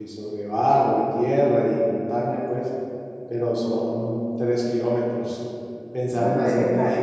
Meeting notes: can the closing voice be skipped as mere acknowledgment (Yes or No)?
No